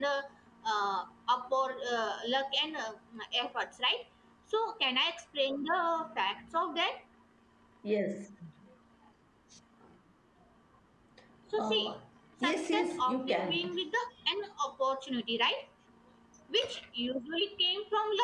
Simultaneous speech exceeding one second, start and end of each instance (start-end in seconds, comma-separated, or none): 12.4-13.7